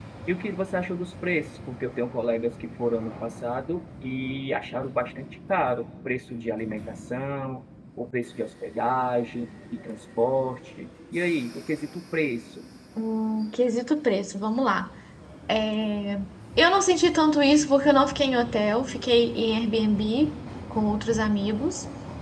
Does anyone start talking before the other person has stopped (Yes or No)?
No